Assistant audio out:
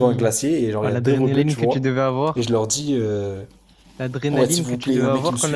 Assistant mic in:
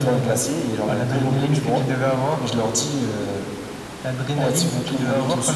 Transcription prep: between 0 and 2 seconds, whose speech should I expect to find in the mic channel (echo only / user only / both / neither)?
echo only